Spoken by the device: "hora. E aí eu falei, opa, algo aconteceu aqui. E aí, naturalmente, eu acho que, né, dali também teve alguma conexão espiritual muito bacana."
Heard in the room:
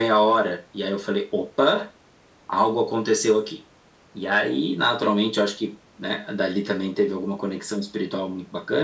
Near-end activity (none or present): none